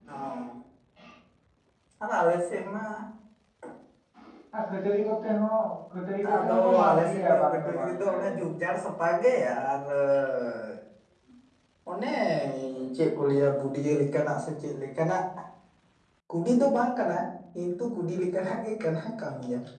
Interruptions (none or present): present